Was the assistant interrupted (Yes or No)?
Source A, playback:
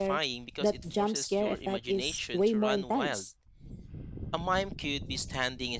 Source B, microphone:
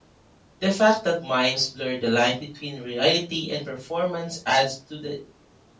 Yes